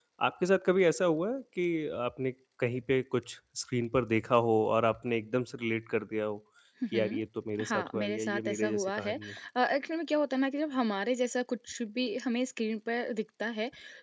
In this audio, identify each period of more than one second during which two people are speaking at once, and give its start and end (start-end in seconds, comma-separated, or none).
7.6-9.2